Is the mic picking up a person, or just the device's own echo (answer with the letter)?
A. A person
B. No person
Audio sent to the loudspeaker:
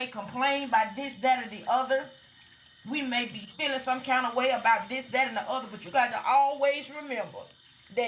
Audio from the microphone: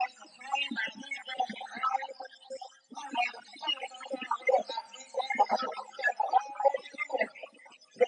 B